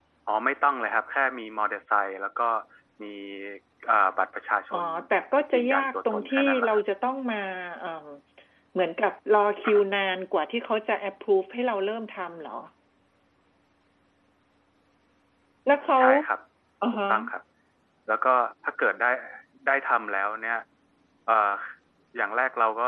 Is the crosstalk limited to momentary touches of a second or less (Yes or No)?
No